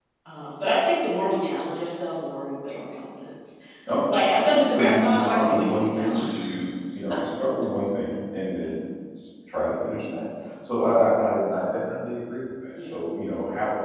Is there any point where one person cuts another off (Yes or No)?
Yes